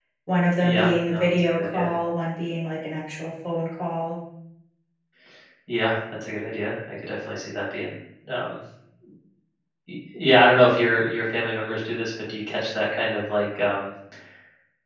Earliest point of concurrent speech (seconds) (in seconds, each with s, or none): 0.6 s